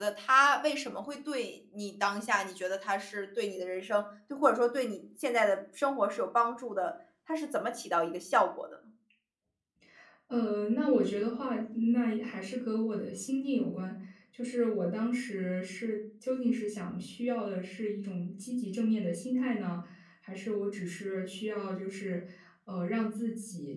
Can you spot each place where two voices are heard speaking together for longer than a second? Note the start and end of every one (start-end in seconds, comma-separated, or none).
none